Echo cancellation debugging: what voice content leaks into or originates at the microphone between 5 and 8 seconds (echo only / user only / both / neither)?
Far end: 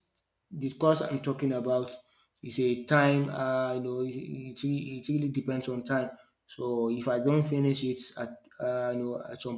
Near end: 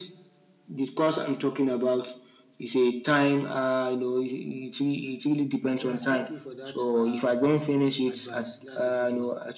both